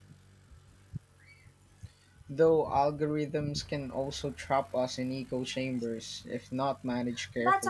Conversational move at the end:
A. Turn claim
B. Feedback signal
A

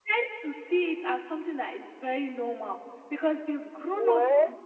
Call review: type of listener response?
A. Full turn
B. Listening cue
B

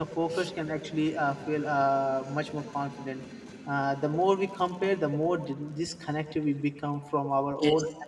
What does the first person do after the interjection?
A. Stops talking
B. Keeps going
B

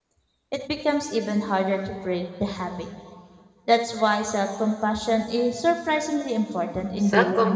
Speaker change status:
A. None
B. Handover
B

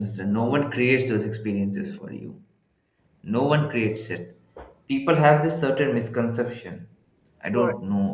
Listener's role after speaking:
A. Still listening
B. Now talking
A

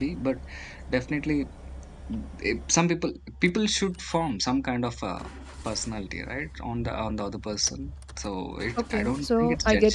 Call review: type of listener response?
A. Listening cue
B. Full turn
B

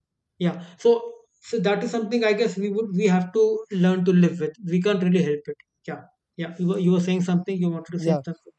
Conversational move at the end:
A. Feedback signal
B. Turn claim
B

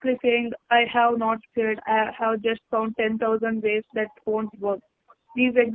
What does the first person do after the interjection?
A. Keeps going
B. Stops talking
A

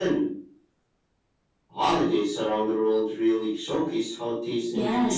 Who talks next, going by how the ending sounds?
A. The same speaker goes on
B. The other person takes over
B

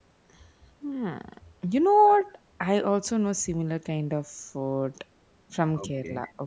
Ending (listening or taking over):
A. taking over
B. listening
A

